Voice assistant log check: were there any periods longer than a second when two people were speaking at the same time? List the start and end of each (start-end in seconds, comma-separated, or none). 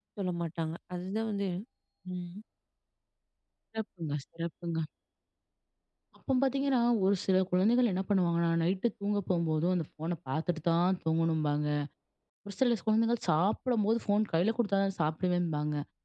none